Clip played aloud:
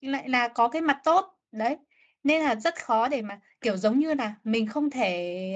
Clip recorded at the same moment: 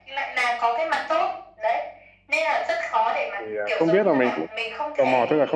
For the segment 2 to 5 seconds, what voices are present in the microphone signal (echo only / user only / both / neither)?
both